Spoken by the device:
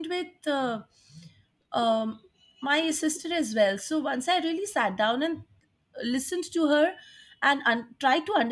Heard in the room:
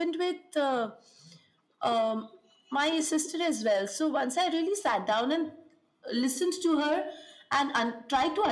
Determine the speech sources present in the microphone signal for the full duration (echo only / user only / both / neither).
echo only